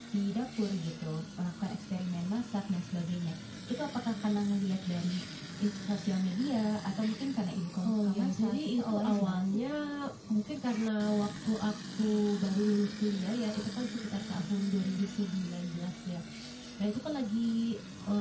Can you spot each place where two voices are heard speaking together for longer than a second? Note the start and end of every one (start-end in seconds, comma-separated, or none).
7.8-9.4